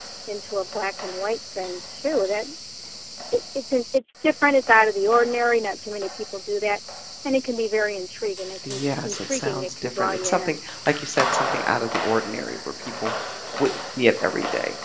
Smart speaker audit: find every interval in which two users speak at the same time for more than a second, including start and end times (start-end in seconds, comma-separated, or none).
8.7-10.6